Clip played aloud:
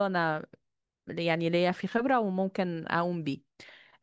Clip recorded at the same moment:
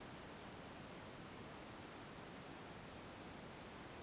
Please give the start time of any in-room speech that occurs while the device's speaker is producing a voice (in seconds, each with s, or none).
none